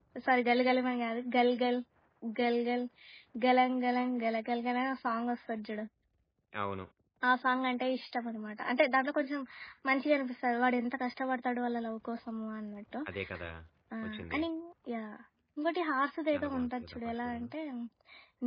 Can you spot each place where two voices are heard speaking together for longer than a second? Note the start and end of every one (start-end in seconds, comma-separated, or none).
16.3-17.5